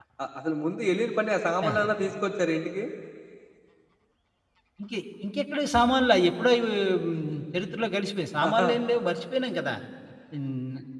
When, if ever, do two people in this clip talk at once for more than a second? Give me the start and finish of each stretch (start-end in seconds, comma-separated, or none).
none